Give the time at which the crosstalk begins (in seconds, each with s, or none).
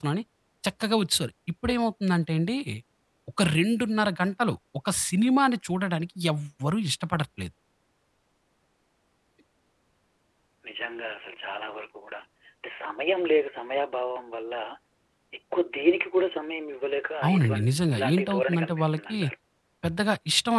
17.2 s